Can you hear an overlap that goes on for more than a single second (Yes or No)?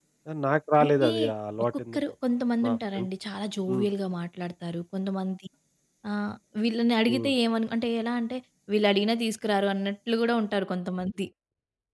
No